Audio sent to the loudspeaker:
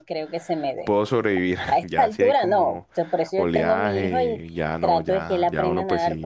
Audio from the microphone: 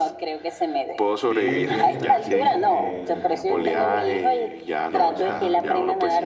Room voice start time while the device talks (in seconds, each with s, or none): 1.3 s